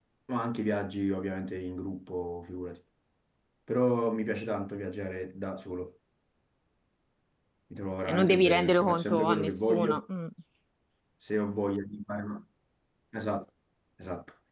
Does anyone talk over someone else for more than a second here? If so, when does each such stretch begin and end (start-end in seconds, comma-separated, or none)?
8.0-10.0